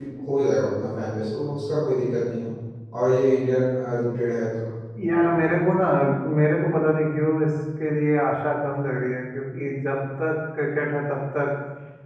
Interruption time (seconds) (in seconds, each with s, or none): none